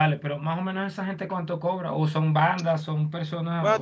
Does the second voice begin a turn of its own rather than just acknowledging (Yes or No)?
Yes